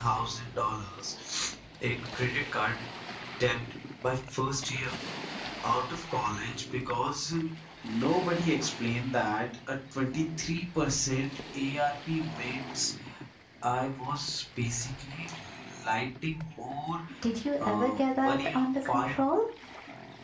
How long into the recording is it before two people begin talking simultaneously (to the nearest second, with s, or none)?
18 s